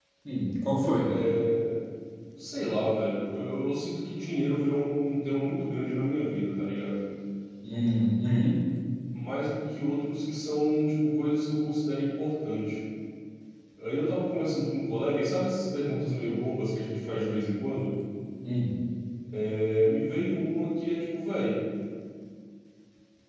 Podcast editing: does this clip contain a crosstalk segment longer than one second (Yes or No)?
No